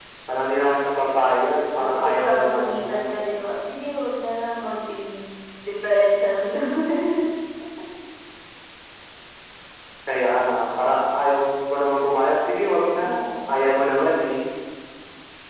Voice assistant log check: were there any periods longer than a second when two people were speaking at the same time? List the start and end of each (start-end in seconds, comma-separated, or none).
1.8-3.1